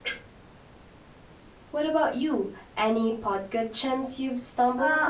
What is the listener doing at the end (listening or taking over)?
taking over